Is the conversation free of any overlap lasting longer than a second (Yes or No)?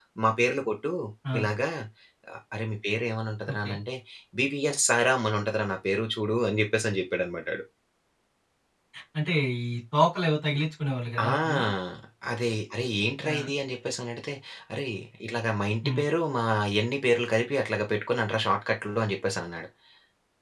Yes